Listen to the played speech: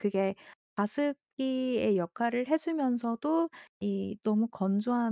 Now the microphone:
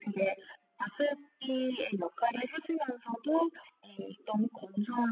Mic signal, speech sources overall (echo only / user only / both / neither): echo only